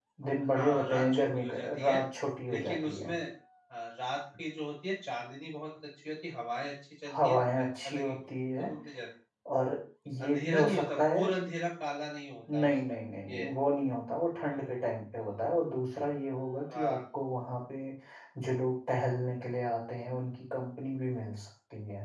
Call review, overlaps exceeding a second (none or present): present